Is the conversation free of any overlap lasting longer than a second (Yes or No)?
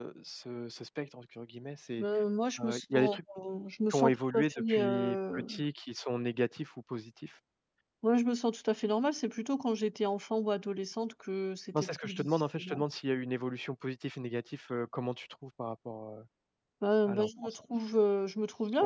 No